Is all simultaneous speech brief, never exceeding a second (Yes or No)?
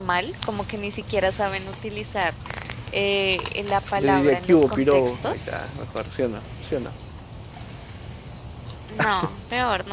No